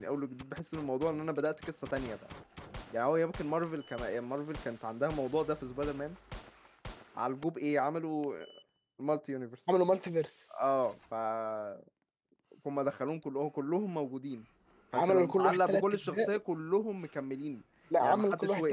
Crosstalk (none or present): present